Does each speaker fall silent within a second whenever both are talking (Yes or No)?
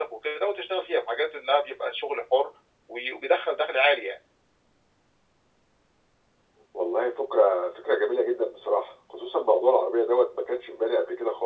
Yes